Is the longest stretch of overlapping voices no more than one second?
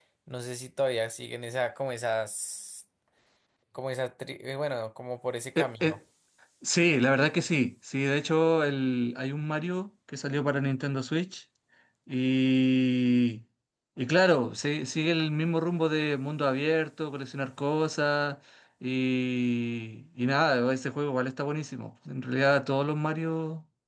Yes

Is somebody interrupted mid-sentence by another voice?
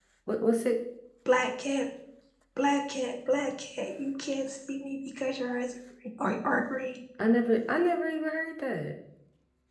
No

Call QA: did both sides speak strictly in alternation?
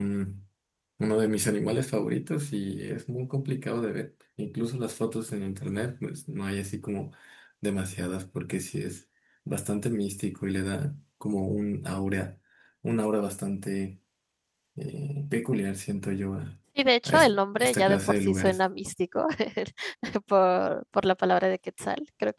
No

